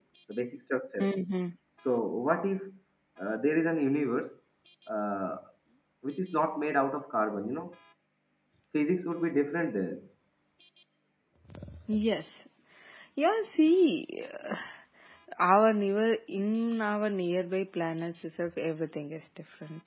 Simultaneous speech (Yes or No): No